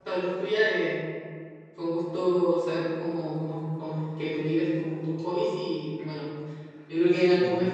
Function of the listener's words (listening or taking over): listening